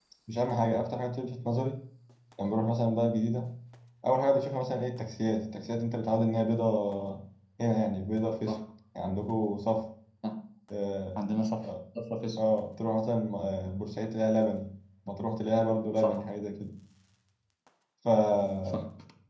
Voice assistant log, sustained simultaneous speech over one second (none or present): none